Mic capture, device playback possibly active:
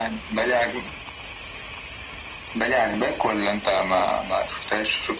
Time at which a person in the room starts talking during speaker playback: none

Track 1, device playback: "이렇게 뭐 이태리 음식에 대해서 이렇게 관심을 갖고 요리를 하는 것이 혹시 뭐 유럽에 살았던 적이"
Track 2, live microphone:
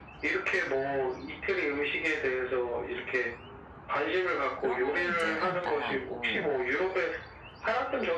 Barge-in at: 5 s

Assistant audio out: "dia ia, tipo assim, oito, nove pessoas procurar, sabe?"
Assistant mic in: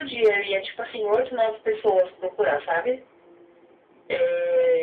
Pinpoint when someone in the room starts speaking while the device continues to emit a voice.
none

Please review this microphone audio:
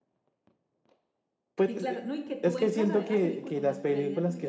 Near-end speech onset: 2 s

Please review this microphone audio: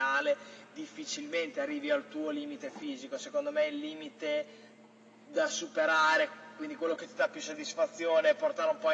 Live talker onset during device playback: none

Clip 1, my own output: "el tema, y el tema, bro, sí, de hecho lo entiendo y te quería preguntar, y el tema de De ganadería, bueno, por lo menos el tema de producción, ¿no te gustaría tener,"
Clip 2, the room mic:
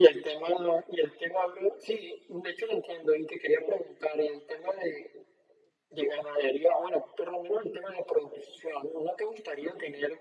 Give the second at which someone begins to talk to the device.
none

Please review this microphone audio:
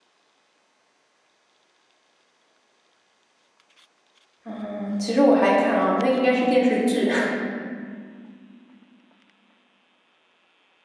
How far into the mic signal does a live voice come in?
4 s

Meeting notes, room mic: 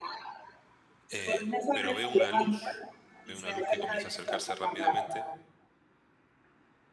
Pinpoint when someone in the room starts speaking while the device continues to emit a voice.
1 s

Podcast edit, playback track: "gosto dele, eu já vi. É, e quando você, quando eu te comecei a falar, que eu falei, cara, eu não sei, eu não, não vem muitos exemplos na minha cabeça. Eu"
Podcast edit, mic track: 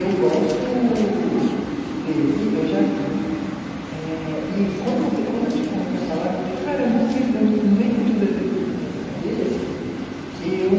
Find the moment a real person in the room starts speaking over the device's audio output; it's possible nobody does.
none

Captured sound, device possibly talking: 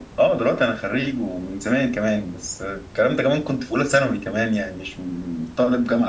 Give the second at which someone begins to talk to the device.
none

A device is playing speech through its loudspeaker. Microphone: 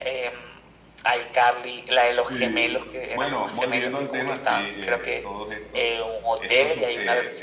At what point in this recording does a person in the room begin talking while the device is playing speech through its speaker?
2 s

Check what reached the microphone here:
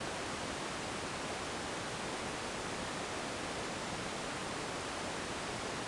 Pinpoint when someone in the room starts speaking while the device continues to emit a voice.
none

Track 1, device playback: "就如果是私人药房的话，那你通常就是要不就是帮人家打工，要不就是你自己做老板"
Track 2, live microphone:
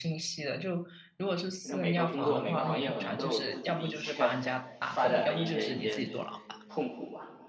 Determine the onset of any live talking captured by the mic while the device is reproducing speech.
2 s

